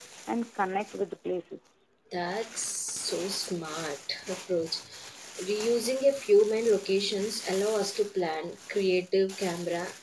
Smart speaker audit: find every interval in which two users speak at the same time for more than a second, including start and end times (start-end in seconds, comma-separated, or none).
none